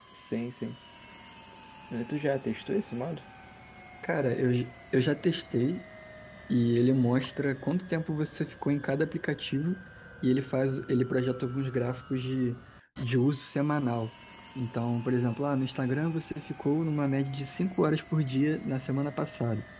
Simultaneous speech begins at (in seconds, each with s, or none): none